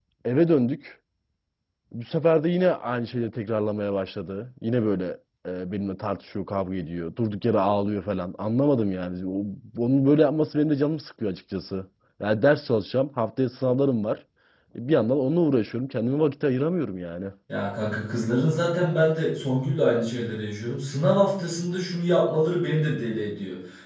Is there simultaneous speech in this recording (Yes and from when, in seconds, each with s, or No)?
No